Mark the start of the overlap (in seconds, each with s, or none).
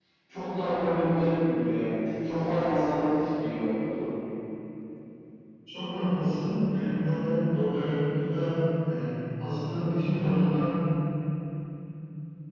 none